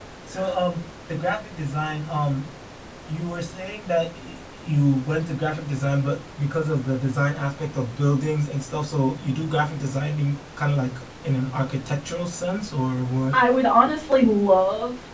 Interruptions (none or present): none